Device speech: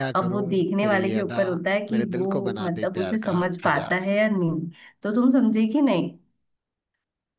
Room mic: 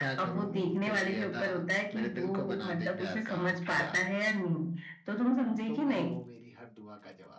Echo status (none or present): present